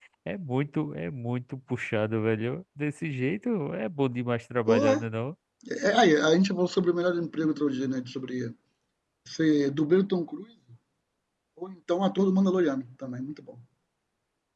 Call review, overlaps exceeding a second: none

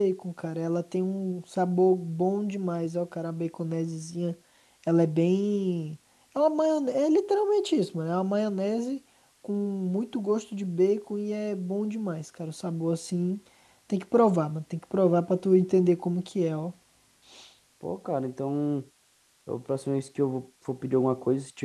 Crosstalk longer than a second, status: none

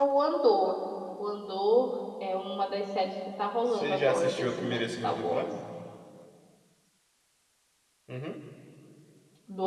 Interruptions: present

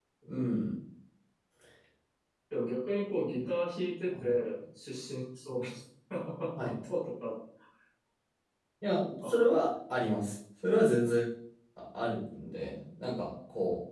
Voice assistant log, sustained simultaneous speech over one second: none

